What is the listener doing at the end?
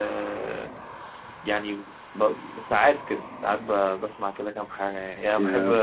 listening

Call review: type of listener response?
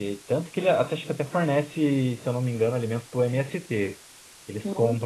listening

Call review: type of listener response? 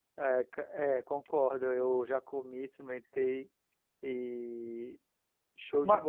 taking over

